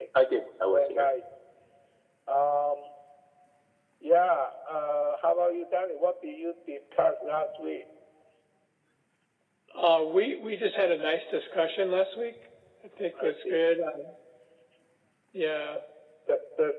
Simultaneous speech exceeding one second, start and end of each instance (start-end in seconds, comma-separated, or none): none